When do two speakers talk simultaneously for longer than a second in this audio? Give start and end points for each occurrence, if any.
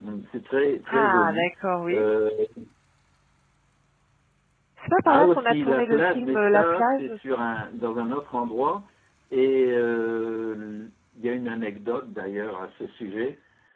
5.0-7.4

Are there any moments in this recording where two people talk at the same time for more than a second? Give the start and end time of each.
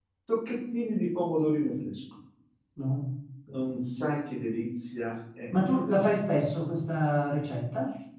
none

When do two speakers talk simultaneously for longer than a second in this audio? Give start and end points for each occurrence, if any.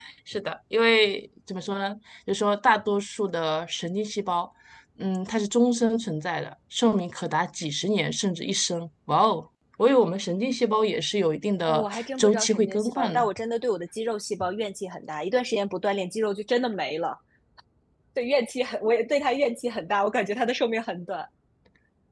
11.6-13.3

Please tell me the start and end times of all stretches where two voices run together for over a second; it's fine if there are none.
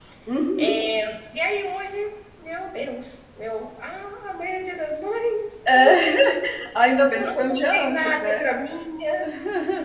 7.1-8.4

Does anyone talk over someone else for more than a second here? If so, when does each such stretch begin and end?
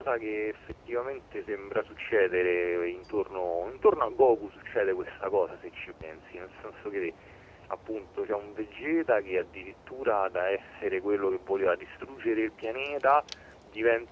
none

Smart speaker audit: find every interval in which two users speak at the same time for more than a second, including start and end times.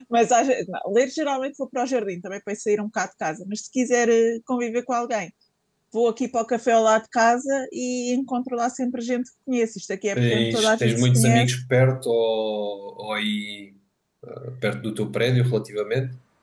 10.2-11.5

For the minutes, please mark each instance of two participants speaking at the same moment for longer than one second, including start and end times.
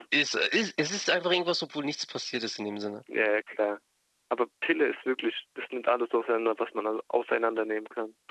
none

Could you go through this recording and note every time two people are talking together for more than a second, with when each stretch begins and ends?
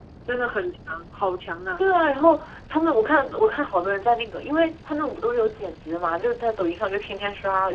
none

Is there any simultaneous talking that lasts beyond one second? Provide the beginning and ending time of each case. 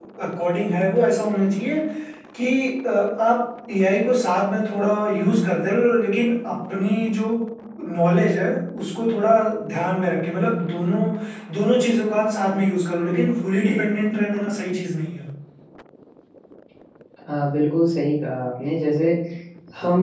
none

